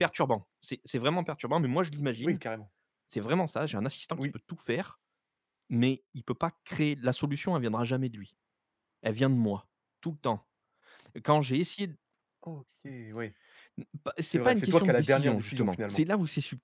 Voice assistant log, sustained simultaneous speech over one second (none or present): present